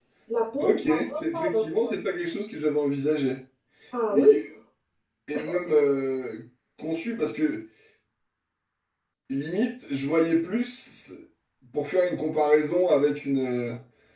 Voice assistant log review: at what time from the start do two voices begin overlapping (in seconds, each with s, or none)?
0.6 s